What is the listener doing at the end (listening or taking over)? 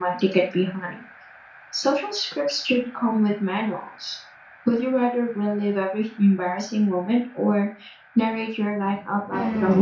taking over